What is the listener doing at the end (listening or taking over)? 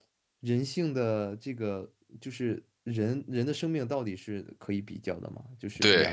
taking over